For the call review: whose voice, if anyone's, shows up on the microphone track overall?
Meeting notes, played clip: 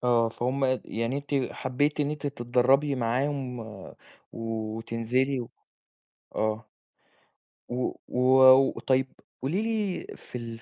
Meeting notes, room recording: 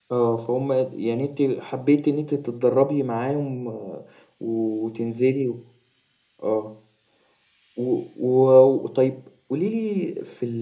echo only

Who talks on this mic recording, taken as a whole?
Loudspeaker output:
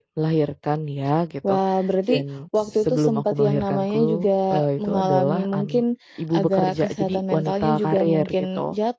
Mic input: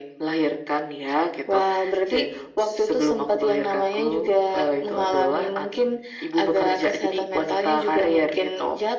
echo only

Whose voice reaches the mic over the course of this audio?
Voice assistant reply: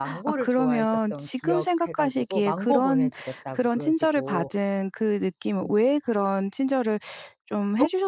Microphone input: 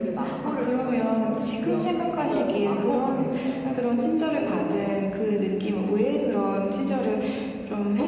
both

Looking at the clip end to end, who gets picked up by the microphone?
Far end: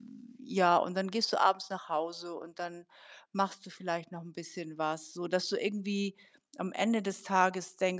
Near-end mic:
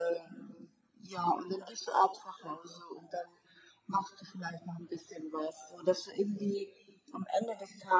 echo only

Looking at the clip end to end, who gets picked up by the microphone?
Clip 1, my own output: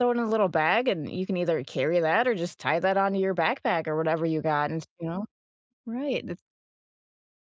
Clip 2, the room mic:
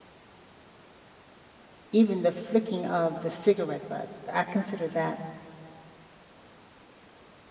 user only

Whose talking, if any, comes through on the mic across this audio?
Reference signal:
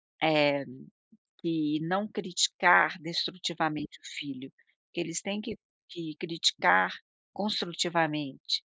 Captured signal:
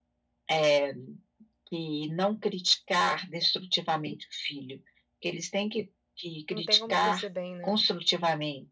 both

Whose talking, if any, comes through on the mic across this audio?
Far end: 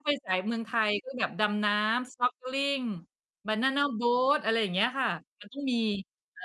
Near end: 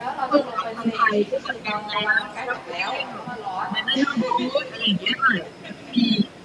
both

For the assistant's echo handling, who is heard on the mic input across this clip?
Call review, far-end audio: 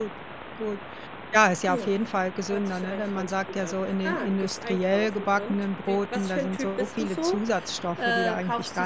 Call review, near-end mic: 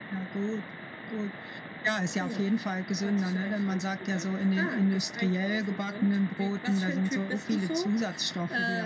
echo only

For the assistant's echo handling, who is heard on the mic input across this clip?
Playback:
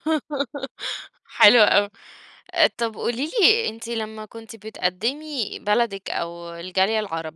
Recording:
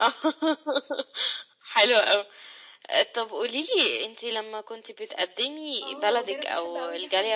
both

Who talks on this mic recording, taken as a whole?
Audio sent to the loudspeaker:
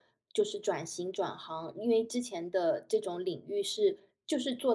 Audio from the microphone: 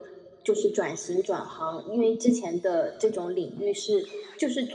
echo only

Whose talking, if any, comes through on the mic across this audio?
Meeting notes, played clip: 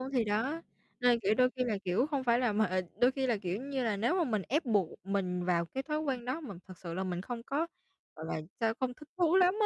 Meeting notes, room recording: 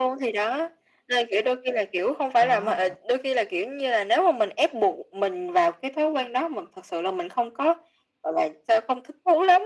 both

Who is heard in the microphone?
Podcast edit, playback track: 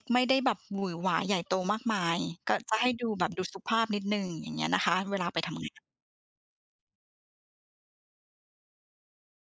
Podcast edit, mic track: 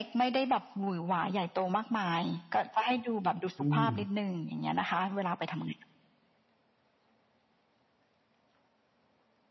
both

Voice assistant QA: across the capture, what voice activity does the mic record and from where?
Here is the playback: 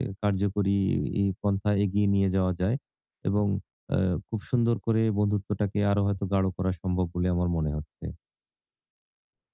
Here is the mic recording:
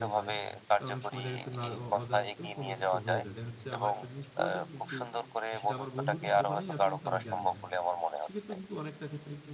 both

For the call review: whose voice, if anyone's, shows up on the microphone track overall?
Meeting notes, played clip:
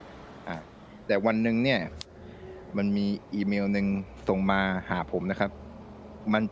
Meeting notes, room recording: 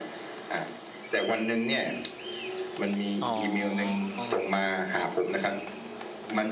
both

